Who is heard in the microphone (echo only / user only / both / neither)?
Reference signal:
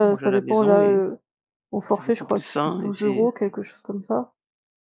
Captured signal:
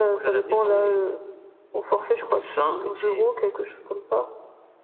echo only